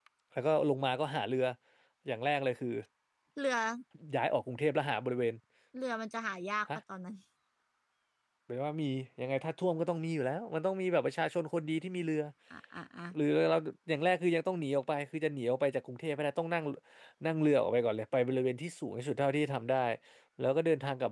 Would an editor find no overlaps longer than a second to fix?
Yes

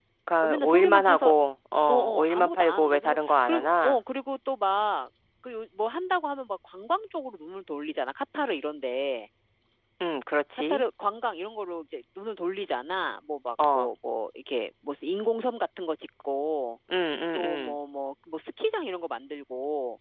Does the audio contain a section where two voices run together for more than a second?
Yes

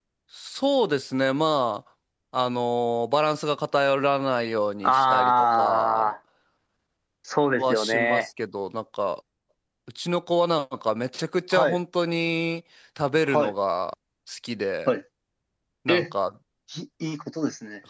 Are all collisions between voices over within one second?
No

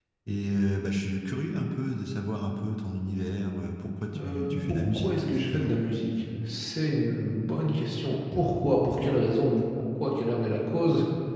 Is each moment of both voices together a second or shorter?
No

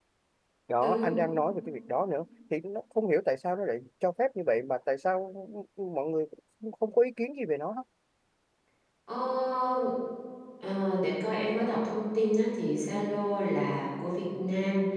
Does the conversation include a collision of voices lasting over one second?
No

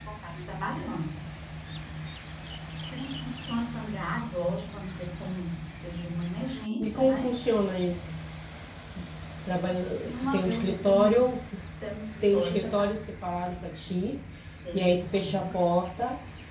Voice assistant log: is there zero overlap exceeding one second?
No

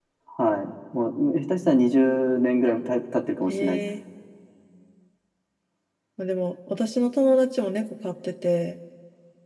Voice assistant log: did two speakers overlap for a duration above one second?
No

